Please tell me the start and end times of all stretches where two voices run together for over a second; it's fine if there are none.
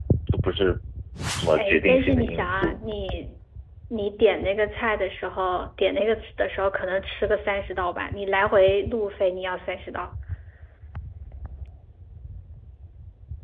1.6-2.8

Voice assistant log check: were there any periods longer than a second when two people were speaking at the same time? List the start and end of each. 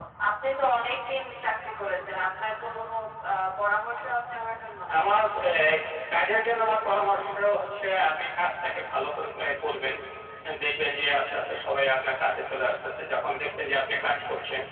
none

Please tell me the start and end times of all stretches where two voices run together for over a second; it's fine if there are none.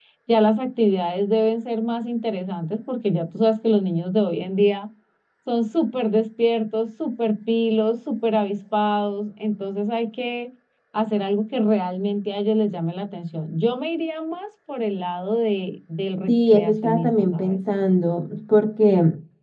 16.3-17.6

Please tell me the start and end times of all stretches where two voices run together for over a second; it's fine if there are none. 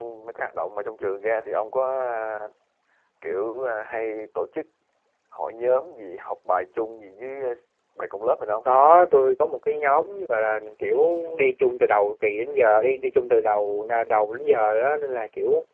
none

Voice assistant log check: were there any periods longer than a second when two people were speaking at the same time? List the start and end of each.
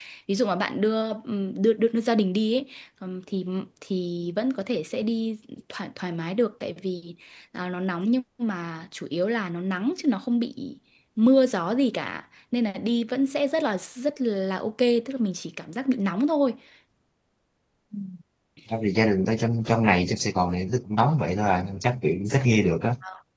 none

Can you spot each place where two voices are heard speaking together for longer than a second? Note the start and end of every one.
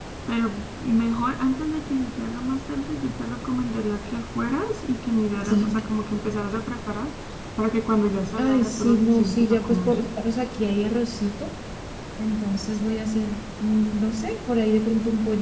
8.4-9.9

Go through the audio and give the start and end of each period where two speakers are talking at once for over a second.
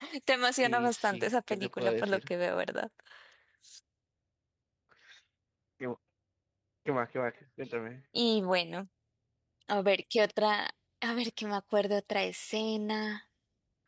0.6-2.3

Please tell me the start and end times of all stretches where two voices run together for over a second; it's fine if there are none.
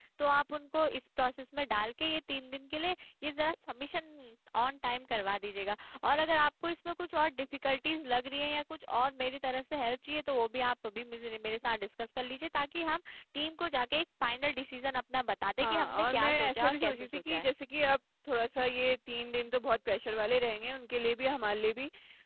15.6-17.4

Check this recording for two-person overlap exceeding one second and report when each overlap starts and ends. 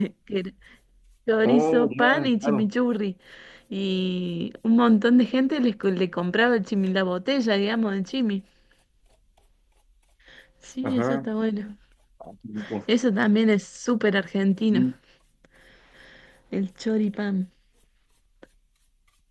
1.4-2.7

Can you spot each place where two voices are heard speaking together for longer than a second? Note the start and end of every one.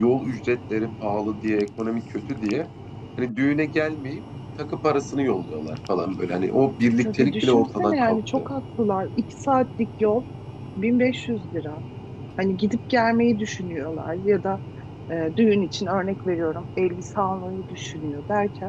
7.0-8.5

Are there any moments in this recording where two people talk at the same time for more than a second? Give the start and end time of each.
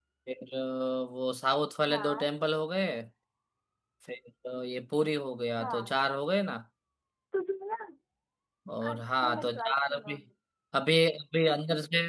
8.9-10.1

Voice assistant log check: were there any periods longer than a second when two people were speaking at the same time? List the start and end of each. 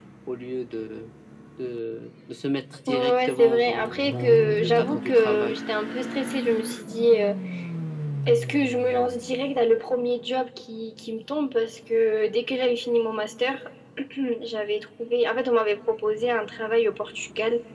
2.9-5.5

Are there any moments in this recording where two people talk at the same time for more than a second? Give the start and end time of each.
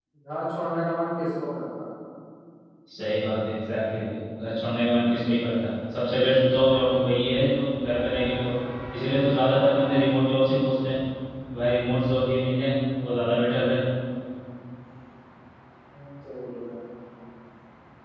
none

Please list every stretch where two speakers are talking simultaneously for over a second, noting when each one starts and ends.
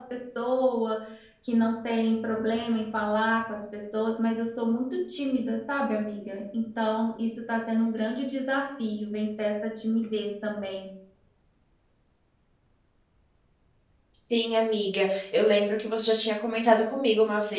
none

